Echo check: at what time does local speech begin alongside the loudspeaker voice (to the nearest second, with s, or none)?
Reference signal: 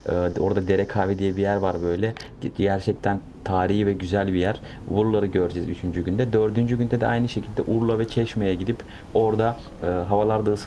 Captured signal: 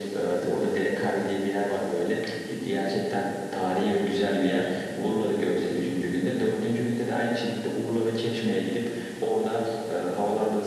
none